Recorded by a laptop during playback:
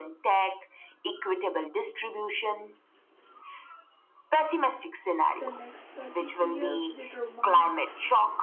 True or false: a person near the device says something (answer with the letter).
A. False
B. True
B